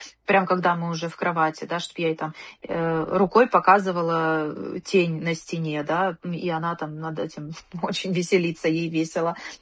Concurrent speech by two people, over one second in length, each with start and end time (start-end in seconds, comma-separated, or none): none